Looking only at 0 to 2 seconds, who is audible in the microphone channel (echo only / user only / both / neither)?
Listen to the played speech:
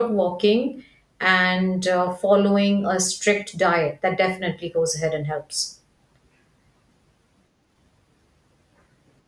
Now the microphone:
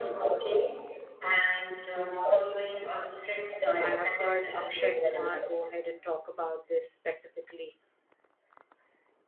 echo only